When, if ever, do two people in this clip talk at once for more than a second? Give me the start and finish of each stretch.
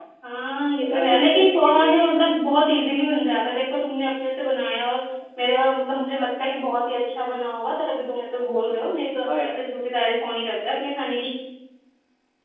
0.8-2.1

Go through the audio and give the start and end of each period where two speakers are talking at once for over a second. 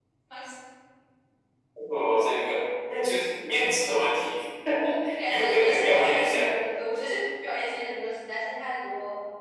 5.3-6.5

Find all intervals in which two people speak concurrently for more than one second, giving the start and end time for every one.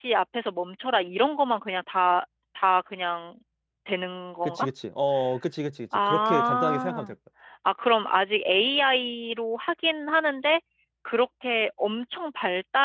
5.9-7.1

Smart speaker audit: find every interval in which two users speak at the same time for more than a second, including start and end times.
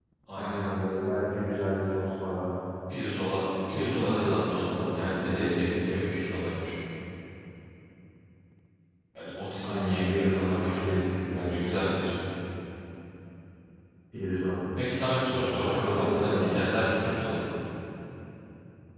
3.7-5.7, 9.6-12.1, 15.3-17.1

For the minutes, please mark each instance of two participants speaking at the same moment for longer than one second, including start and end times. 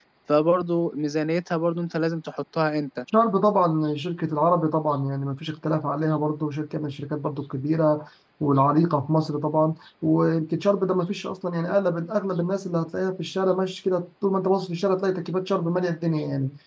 none

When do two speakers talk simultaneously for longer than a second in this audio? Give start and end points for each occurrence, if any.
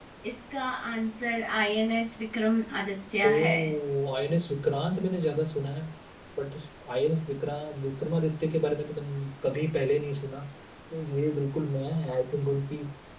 none

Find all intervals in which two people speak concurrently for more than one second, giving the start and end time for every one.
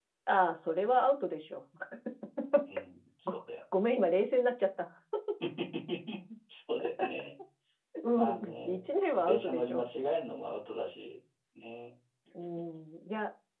8.2-9.8

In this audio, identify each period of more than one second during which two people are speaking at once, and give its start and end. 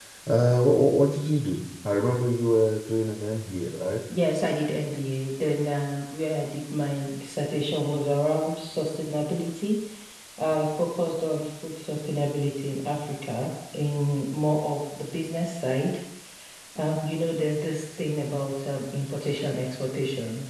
none

